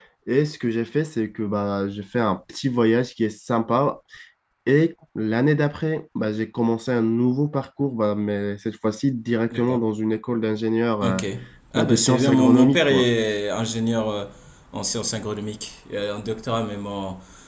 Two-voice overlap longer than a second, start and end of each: 11.7-13.0

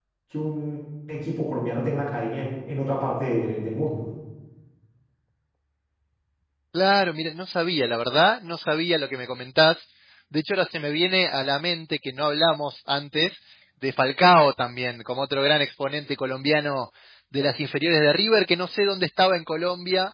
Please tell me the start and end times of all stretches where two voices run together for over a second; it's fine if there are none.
none

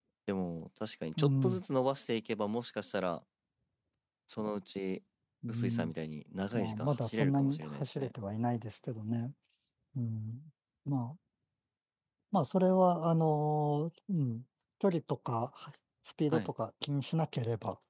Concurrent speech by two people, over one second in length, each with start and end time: 6.5-8.1

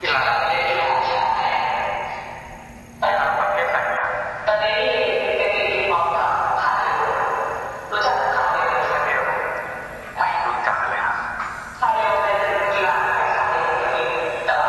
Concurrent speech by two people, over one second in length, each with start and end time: none

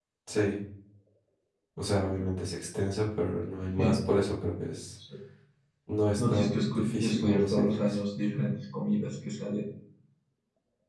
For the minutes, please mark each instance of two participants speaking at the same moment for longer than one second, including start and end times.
6.2-8.0

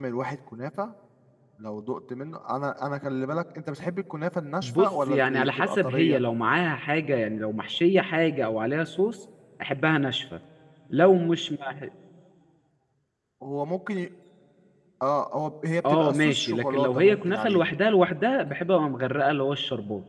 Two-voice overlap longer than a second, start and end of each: 4.6-6.2, 15.9-17.7

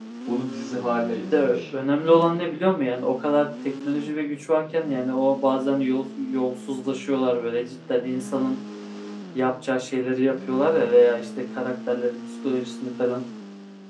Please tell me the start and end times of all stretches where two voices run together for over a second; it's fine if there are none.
none

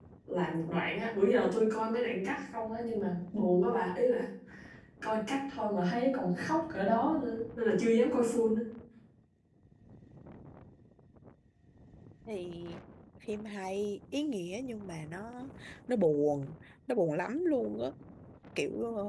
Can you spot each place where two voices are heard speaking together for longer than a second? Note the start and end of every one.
none

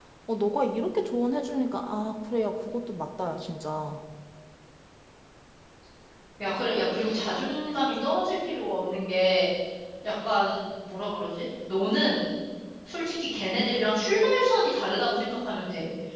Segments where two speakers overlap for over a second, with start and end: none

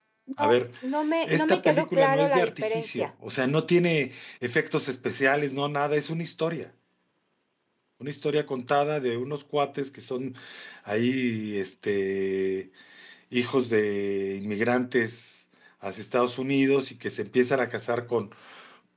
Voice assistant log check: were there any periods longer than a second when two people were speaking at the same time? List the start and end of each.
1.2-3.1

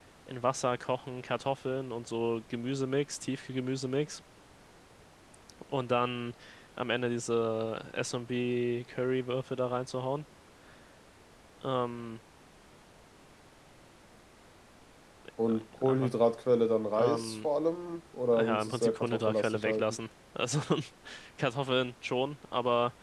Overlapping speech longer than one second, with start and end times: 18.3-20.0

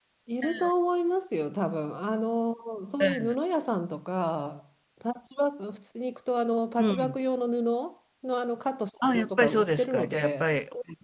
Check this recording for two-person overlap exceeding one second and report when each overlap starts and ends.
9.1-10.5

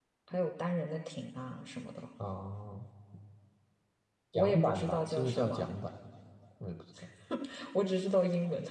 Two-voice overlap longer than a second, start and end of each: 4.3-5.7

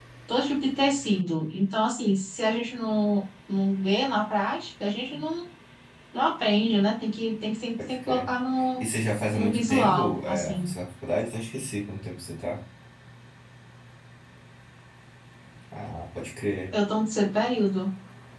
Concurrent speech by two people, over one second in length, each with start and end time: 9.3-10.7

